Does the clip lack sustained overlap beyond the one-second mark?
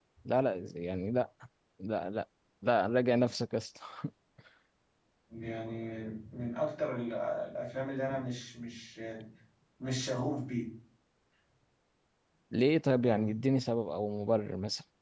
Yes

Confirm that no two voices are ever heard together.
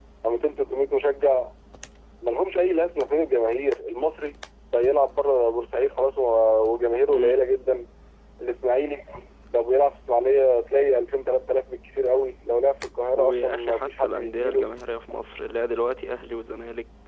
No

